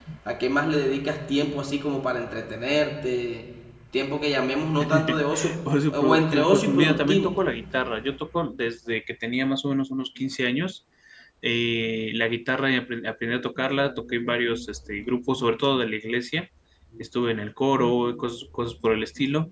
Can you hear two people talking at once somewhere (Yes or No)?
Yes